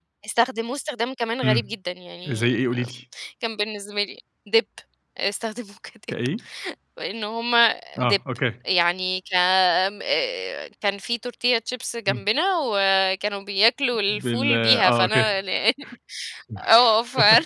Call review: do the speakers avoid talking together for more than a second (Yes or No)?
No